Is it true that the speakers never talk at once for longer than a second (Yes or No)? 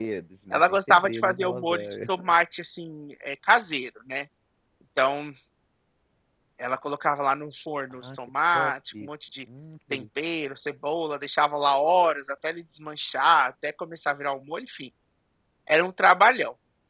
No